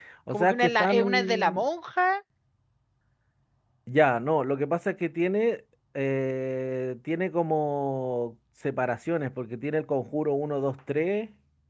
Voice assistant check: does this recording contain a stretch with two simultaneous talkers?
Yes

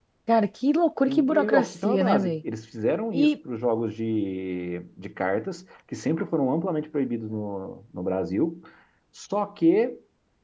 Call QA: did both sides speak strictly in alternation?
No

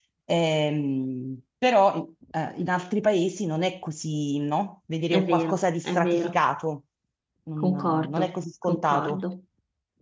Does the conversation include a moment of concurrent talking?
Yes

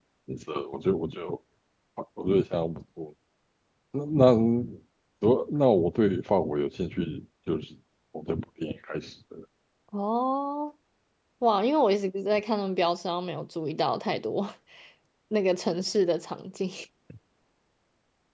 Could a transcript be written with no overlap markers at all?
Yes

